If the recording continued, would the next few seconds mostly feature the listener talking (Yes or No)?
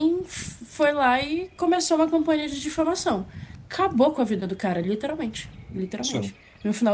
No